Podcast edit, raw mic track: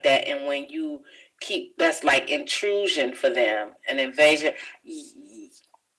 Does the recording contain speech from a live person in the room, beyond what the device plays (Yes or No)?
No